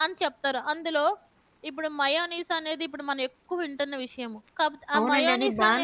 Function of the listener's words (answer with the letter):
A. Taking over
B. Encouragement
A